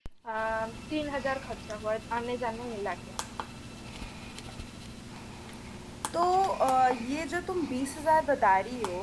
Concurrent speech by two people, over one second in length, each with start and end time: none

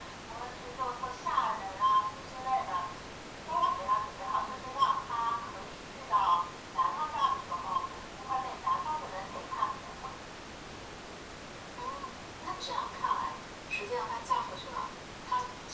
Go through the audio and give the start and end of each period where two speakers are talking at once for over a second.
none

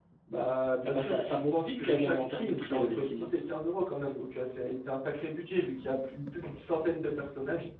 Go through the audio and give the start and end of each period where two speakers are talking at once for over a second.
0.8-3.3

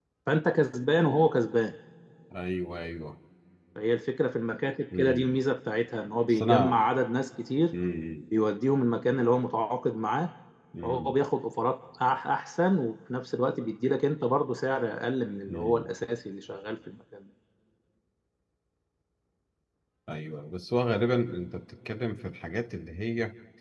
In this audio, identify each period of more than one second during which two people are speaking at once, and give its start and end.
none

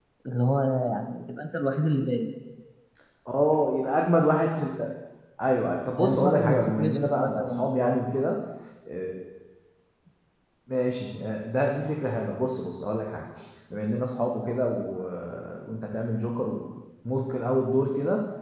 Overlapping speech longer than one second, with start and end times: 5.9-8.1

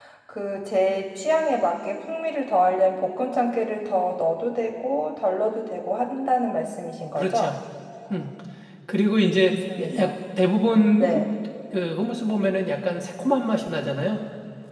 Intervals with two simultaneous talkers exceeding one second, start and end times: none

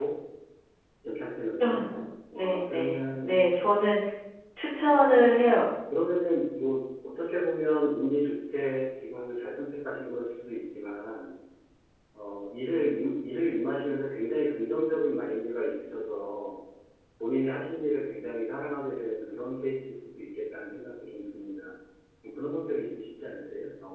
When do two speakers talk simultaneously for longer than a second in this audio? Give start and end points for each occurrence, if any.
2.3-3.6

